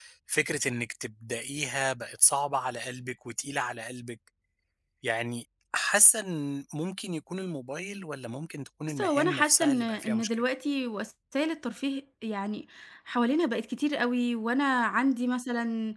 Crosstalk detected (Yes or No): Yes